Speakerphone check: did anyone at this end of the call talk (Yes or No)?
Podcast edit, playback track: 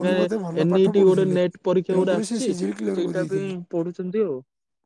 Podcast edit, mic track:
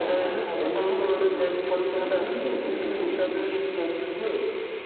No